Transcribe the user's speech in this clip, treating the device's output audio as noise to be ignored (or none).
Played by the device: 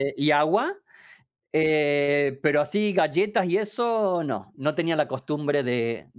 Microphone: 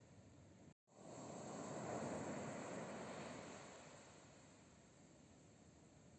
none